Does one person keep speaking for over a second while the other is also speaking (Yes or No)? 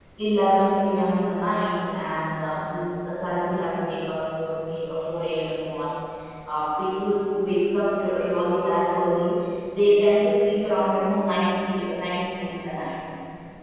No